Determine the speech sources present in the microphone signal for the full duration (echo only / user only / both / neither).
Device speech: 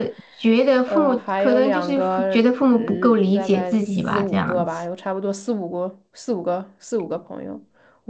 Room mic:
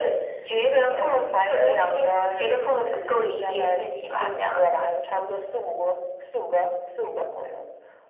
echo only